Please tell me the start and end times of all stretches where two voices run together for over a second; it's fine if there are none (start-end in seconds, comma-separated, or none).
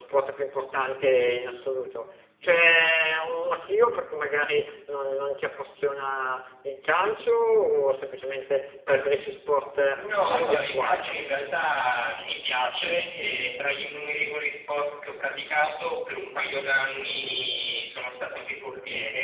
9.8-11.4